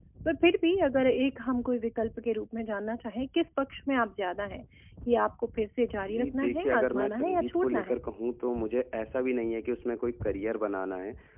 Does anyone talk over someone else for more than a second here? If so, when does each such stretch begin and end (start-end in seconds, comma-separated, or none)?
6.1-8.0